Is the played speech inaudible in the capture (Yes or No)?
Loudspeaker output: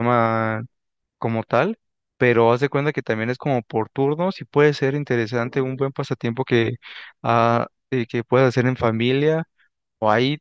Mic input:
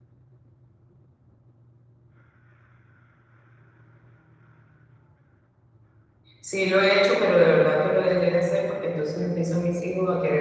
Yes